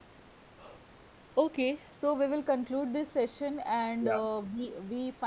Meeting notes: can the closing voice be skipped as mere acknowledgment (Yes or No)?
Yes